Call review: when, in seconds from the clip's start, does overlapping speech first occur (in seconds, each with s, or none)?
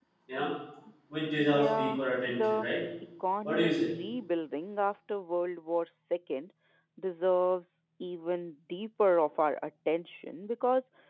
1.4 s